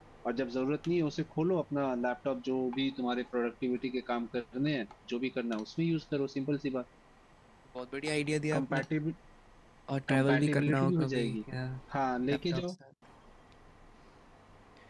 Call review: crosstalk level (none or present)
present